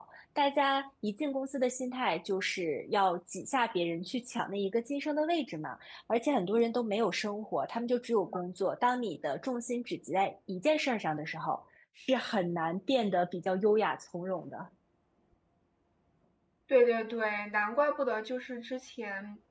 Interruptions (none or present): none